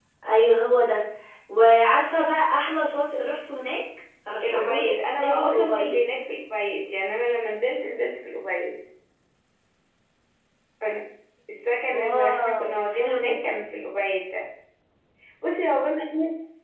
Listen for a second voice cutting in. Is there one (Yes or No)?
Yes